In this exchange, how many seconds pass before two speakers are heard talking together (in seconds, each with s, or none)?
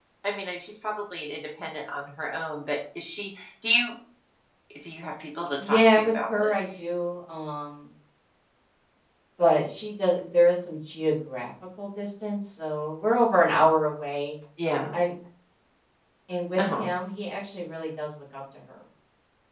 5.6 s